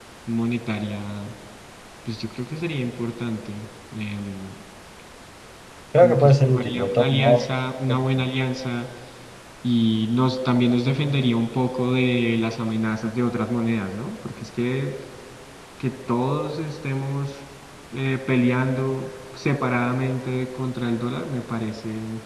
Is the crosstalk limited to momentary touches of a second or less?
No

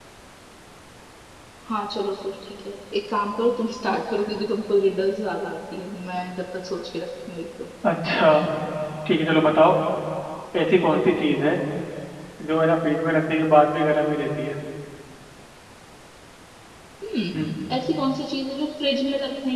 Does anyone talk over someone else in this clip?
No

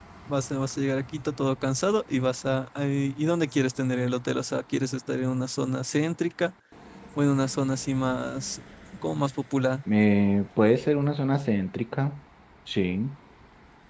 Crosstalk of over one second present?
No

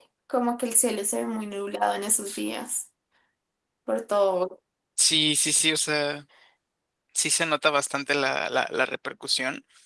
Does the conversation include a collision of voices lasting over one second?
No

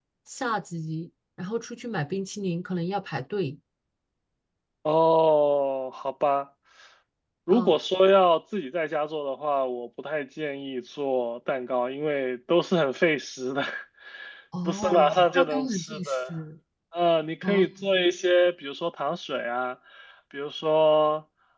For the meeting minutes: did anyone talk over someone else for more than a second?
Yes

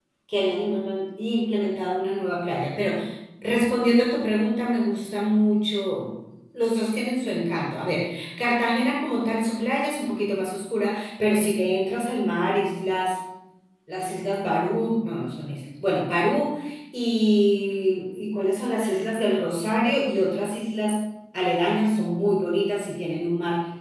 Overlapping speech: No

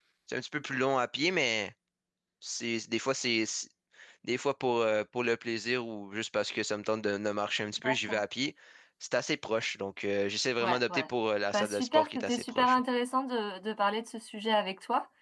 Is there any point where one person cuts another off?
Yes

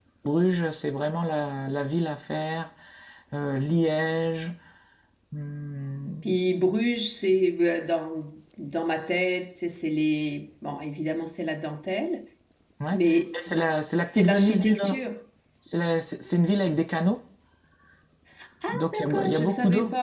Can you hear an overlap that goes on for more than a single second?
Yes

